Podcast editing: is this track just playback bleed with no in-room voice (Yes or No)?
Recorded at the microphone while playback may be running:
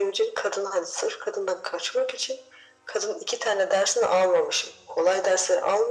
Yes